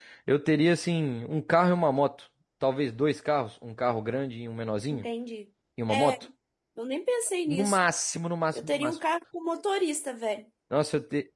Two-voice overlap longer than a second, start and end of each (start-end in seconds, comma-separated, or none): none